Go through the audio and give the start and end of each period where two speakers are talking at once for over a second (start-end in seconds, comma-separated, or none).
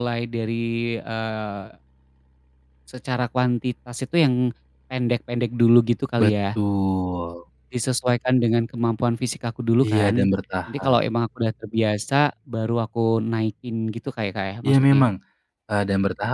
none